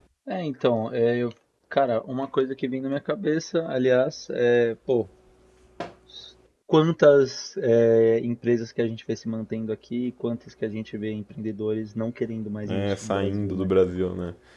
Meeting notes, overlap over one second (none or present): present